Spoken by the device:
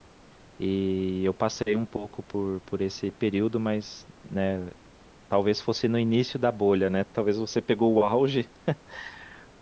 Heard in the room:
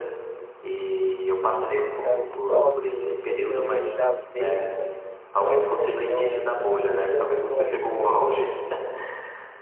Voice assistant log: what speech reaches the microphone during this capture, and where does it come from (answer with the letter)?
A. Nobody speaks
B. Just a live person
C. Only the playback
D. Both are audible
D